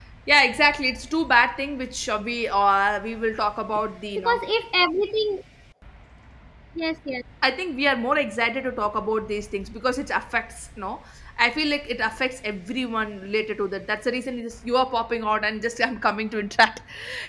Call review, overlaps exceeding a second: none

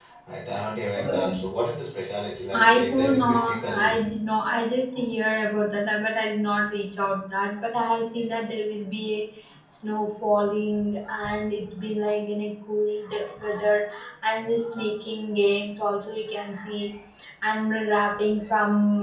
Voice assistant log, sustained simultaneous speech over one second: present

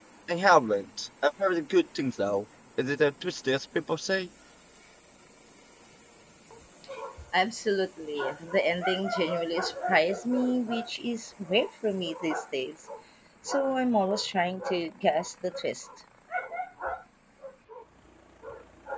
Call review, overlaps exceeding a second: none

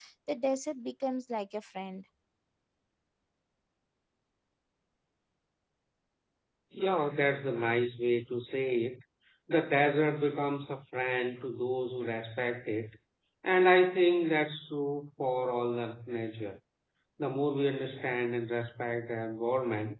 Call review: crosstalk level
none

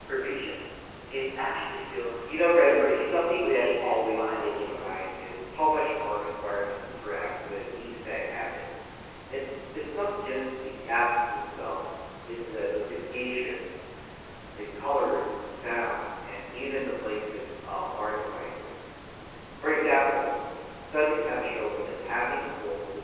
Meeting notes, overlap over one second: present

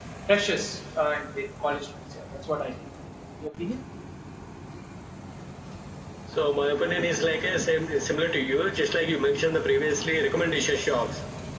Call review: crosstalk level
none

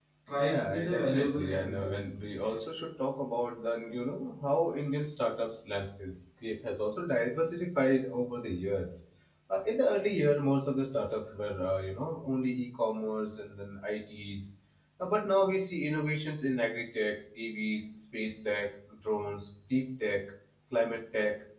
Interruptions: present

